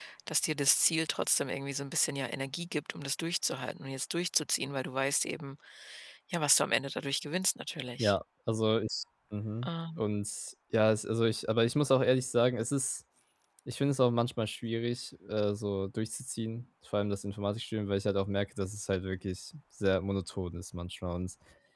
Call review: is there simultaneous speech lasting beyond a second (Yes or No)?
No